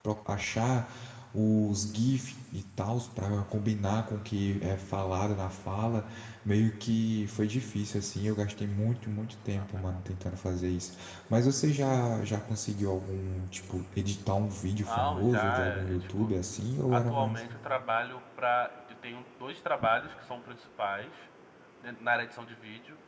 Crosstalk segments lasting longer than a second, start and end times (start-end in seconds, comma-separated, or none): 14.8-16.3